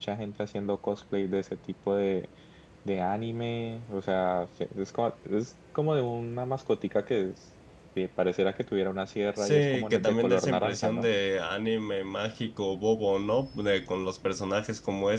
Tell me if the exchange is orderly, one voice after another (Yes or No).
No